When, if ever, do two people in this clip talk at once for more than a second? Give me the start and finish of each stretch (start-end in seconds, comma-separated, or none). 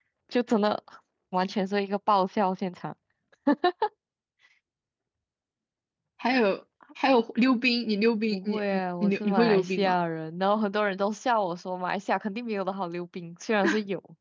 8.3-9.9